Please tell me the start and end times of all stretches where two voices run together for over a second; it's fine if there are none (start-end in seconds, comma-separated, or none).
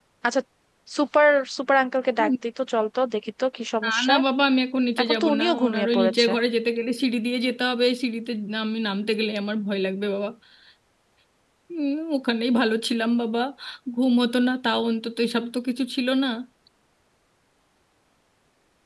5.0-6.3